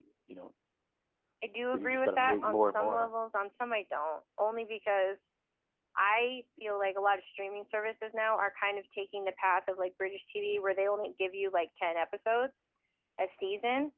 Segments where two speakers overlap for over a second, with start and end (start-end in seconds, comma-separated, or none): 1.7-3.1